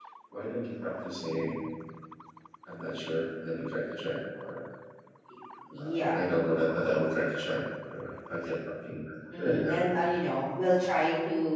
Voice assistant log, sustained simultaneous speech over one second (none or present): none